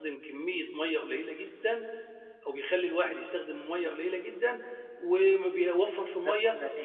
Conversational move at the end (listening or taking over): listening